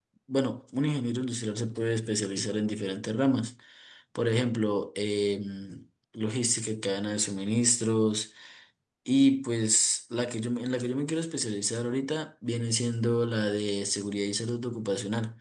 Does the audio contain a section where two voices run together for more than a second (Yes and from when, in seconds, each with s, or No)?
No